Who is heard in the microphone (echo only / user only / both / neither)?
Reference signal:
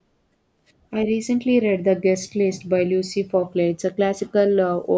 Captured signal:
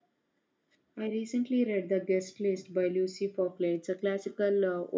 echo only